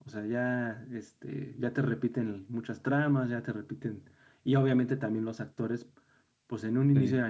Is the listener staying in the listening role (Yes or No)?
Yes